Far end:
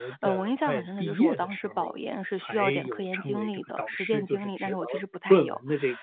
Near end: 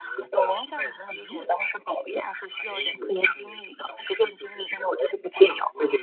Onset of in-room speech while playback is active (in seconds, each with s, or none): none